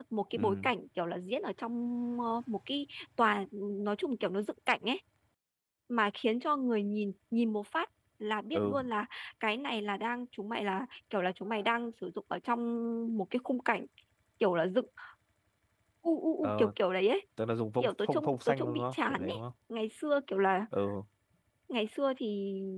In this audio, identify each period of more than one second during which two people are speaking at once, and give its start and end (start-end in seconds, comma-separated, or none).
17.8-19.4